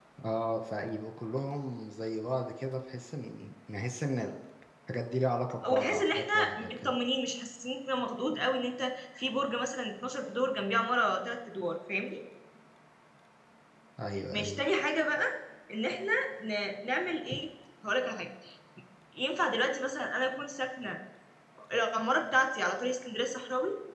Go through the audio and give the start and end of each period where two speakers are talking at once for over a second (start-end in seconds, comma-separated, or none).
5.7-6.9